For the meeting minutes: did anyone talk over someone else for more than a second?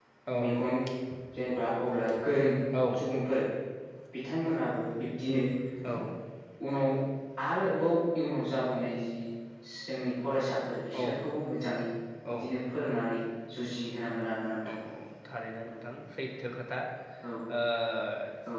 No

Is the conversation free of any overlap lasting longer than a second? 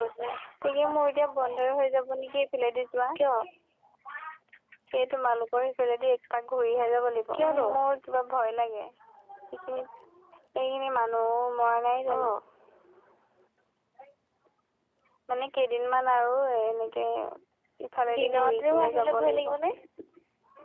No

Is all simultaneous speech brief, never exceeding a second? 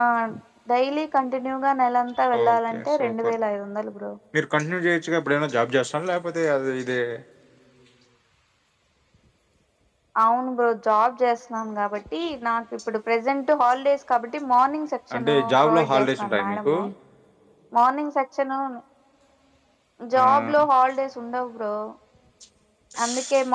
No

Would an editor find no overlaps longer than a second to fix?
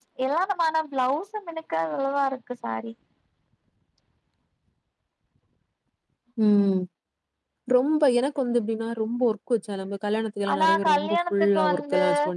No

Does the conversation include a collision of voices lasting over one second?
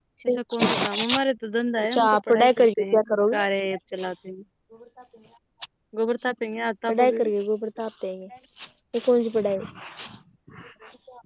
Yes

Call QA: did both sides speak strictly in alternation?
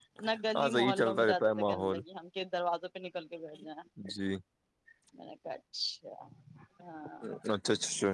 No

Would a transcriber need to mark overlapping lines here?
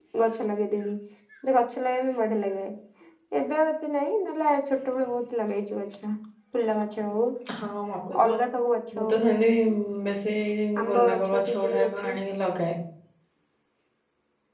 Yes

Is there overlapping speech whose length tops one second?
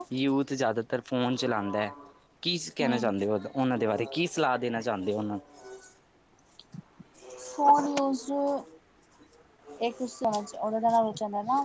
No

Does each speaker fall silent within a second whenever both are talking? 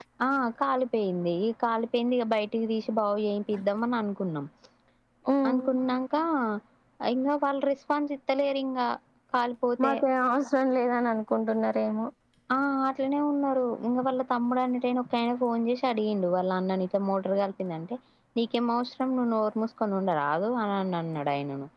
Yes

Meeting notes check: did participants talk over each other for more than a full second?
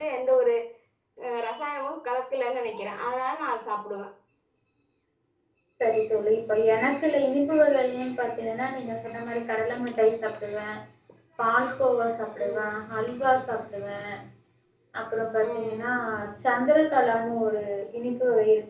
No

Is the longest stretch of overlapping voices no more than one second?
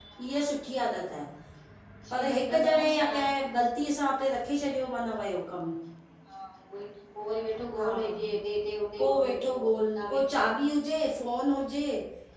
No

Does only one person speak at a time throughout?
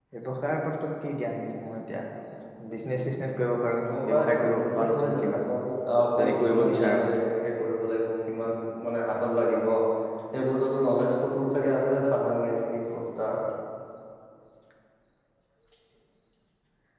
No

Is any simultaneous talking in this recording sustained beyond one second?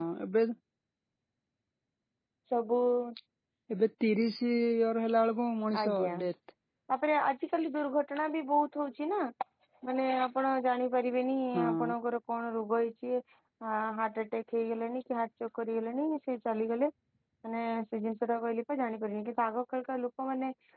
No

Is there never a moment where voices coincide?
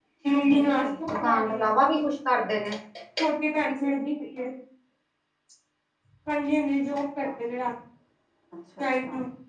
No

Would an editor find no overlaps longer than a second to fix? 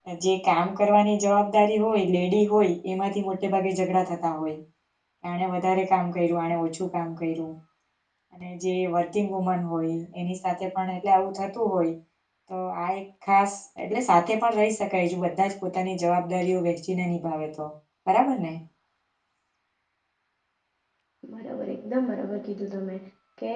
Yes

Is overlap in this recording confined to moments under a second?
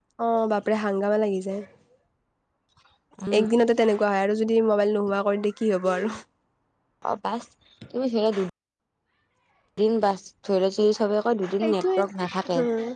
Yes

